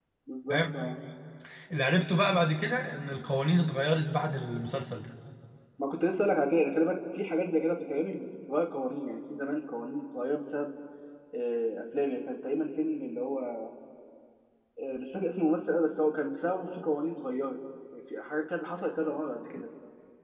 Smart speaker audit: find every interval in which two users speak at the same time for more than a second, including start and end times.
none

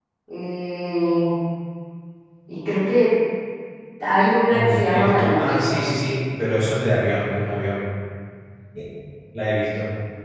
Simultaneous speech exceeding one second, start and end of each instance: 4.5-5.9

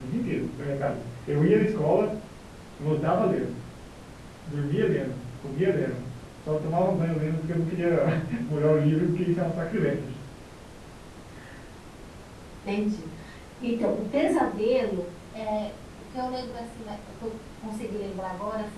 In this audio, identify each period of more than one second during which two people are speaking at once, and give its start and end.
none

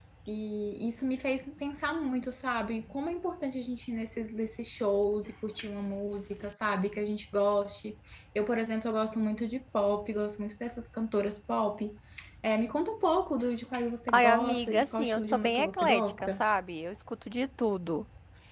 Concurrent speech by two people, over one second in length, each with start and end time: 14.1-16.4

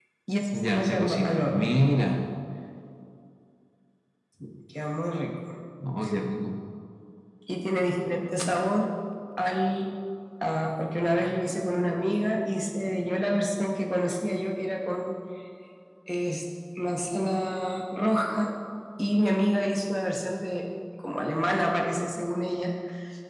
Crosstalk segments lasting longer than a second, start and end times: 0.5-1.7

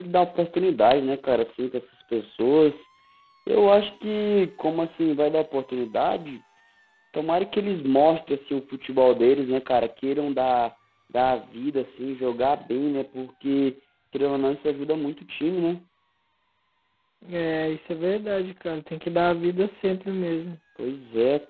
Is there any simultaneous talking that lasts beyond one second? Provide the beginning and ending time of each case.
none

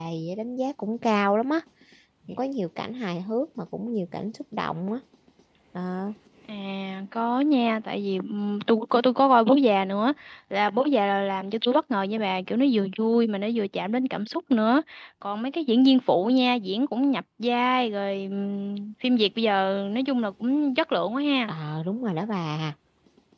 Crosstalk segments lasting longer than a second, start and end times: none

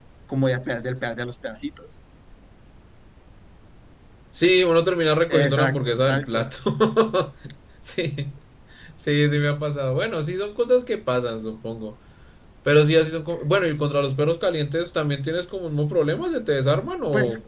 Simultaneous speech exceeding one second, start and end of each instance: 5.3-6.5

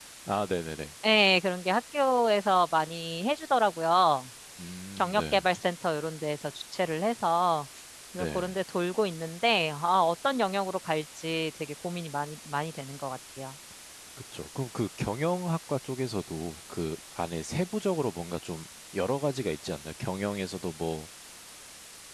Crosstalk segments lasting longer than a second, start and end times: none

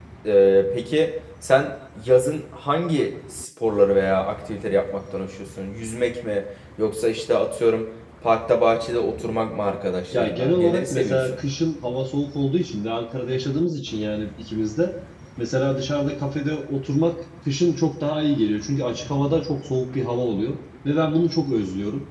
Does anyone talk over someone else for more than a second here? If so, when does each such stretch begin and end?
10.1-11.4

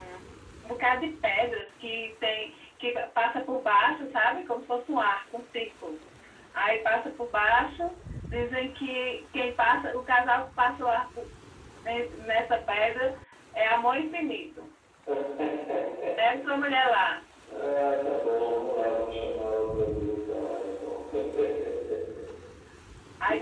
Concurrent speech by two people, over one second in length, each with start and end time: none

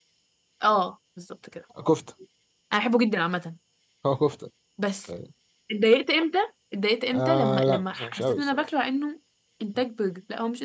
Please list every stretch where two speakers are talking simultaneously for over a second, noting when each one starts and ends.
7.1-8.7

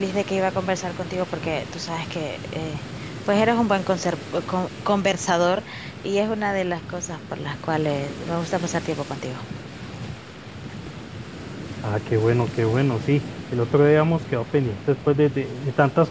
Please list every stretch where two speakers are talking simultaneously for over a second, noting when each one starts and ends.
none

